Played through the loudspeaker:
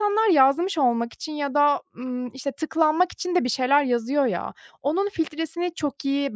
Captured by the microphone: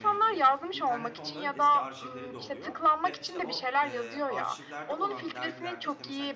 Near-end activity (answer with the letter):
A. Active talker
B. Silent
A